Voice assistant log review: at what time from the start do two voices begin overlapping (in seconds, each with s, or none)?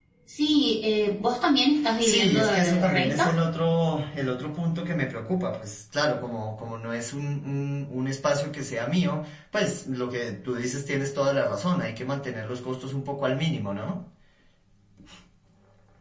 2.0 s